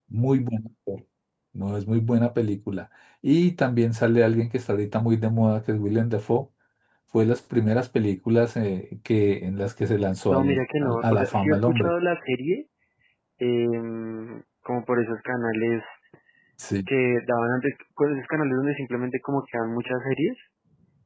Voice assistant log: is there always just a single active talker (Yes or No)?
No